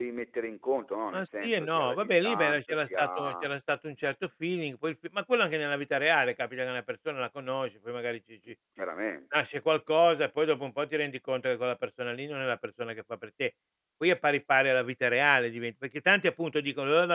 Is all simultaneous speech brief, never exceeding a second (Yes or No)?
No